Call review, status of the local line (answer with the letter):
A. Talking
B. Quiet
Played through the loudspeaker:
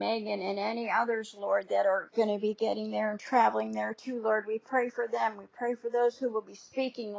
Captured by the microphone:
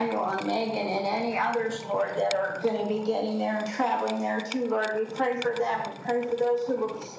B